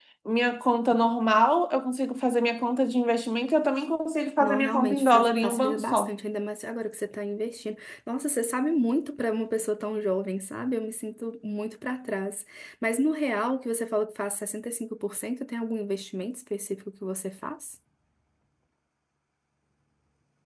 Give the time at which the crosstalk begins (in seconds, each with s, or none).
4.4 s